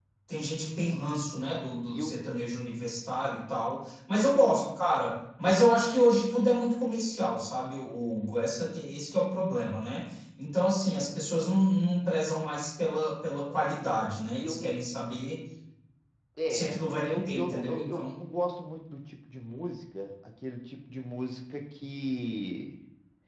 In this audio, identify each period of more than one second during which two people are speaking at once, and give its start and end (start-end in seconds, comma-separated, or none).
16.5-18.2